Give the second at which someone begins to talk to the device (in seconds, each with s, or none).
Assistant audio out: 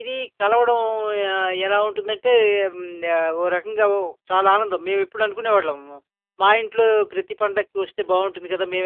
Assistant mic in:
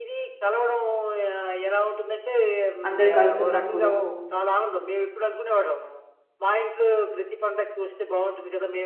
2.9 s